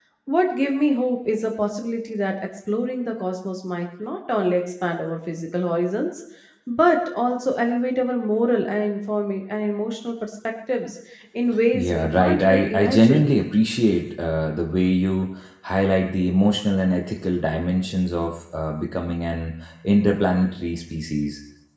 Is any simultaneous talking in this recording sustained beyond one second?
Yes, from 11.7 s

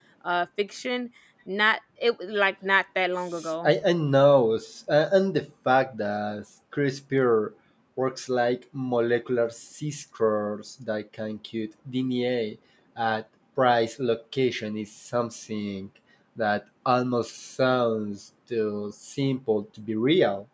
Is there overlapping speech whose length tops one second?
No

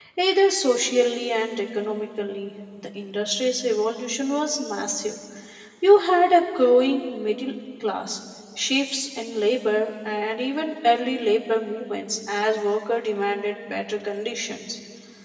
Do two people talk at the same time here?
No

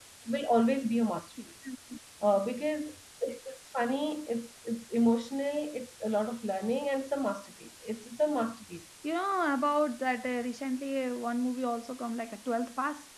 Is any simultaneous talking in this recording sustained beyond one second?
No

